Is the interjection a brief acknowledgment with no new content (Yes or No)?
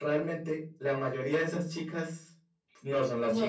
Yes